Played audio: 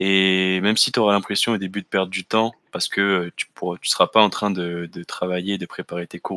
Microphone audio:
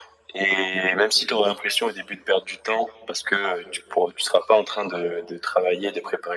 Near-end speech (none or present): none